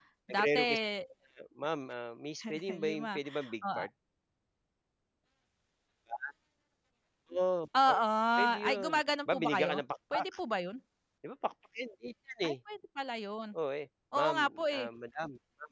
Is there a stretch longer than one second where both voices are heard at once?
Yes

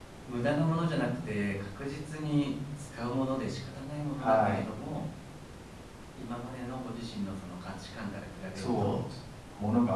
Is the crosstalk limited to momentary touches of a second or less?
Yes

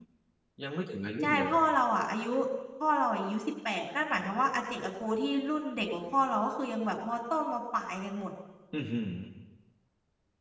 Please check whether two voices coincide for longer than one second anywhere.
No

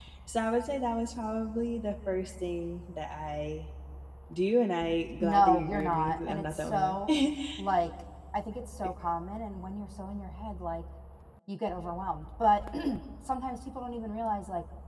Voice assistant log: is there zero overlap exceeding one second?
No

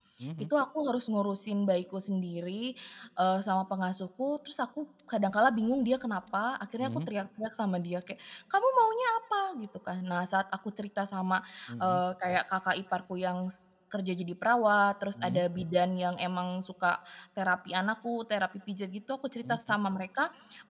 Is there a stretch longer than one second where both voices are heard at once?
No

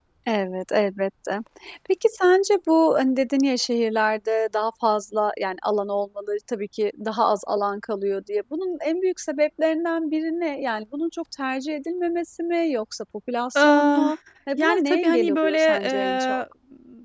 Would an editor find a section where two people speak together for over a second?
Yes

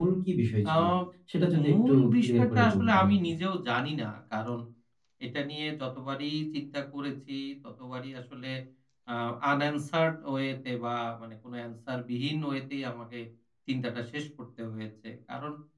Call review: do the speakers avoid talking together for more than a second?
No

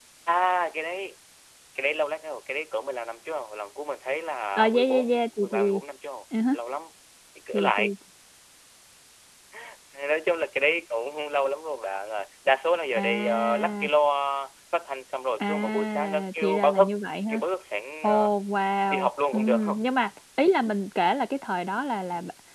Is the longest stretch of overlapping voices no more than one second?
No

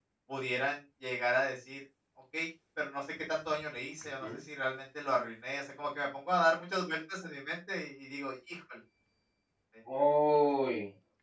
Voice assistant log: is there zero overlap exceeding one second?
Yes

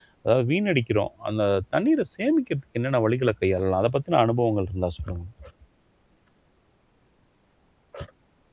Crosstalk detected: No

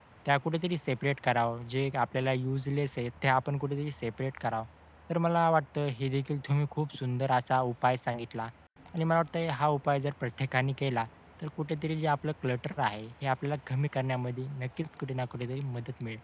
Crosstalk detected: No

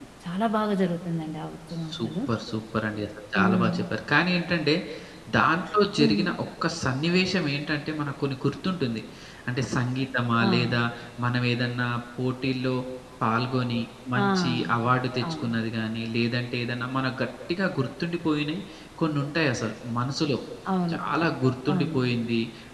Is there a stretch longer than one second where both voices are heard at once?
No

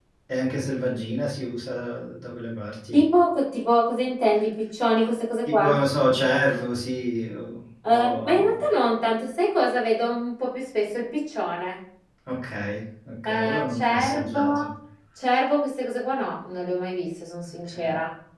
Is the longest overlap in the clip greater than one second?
Yes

